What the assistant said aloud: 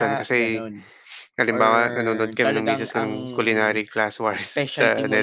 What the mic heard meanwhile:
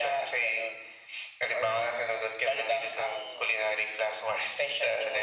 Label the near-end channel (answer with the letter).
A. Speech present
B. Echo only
B